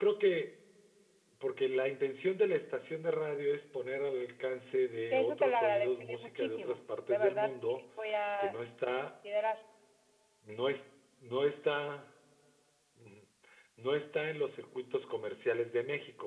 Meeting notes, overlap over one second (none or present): present